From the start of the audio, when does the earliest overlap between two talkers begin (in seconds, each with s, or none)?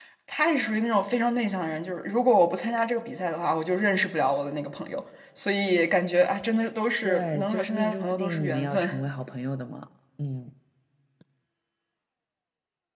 7.0 s